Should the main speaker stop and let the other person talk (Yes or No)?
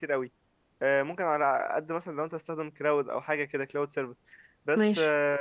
No